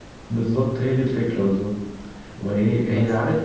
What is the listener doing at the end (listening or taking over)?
listening